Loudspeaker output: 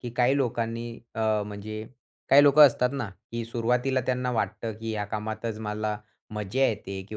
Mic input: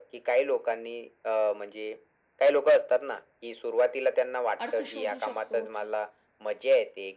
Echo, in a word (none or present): present